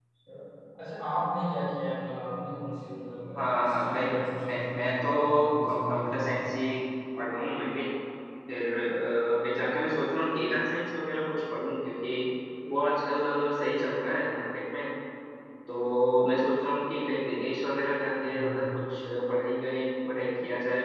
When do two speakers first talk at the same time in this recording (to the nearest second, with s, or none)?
3 s